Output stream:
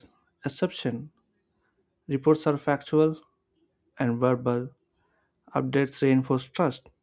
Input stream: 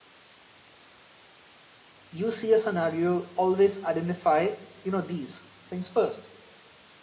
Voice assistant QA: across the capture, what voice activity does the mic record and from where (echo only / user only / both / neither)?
user only